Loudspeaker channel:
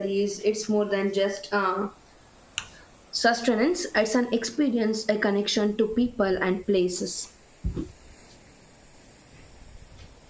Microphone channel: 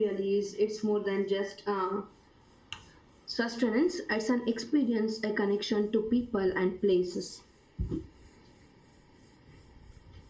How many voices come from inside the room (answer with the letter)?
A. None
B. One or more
A